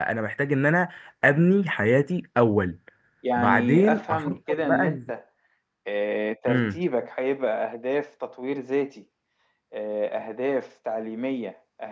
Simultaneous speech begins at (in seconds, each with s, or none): 3.4 s